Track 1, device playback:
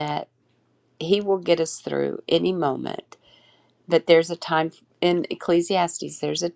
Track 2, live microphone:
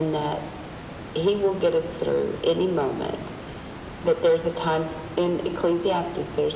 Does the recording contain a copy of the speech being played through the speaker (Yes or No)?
Yes